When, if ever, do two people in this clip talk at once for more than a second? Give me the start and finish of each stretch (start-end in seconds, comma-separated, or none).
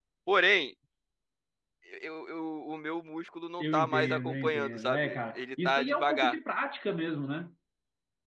3.6-6.4